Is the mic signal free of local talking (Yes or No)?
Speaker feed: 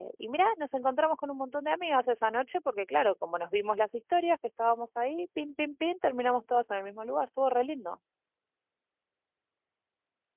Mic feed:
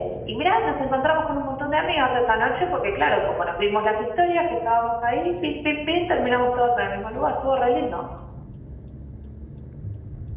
Yes